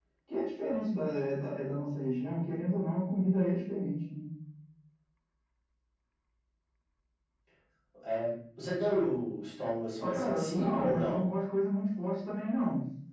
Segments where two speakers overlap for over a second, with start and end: 10.0-11.2

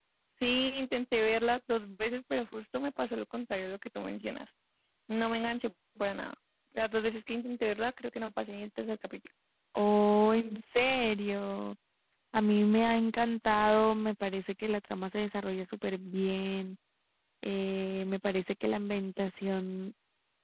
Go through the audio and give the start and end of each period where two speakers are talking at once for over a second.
none

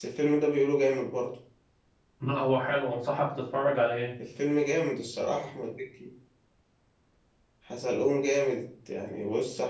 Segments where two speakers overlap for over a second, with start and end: none

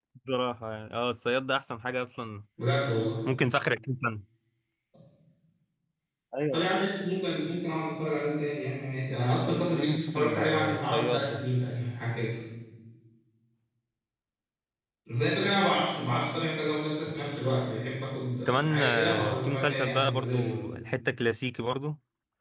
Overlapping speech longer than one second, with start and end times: 9.3-11.4, 18.5-20.6

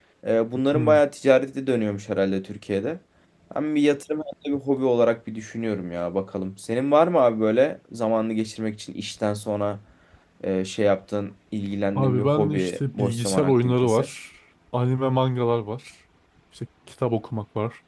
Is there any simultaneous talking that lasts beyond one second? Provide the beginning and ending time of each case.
12.0-14.1

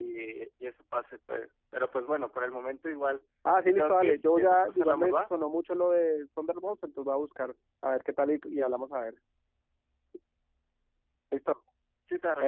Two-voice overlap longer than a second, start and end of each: 3.6-5.2

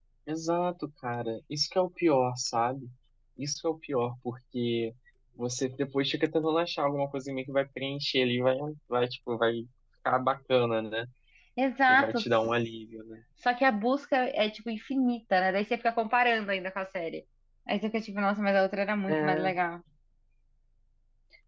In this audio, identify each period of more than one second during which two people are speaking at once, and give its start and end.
none

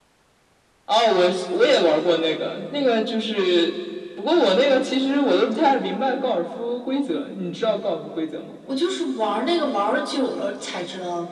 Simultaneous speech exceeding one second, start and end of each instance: none

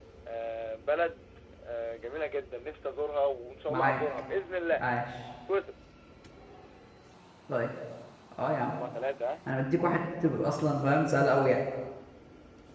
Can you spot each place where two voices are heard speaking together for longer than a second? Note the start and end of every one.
none

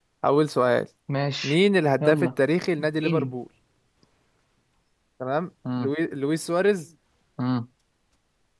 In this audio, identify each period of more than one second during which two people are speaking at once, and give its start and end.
none

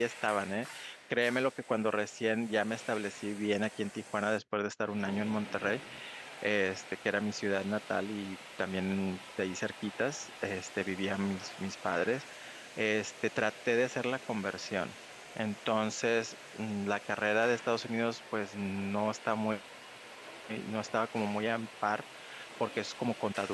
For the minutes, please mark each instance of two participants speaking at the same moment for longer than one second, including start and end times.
none

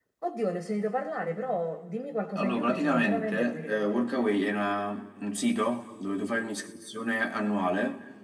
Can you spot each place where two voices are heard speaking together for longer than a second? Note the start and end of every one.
2.4-4.4

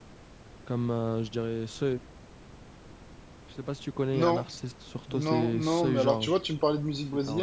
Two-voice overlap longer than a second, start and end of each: 5.1-6.4

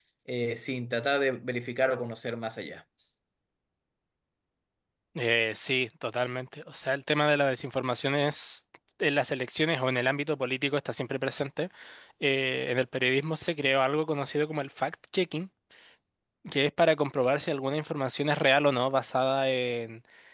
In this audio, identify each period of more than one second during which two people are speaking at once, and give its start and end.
none

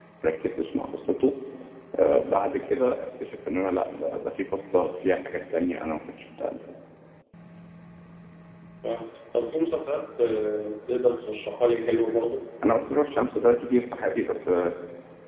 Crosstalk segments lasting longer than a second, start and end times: none

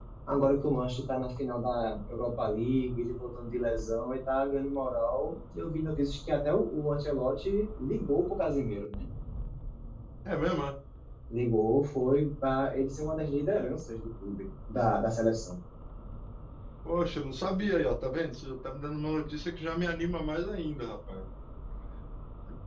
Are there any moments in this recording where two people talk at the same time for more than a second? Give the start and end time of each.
none

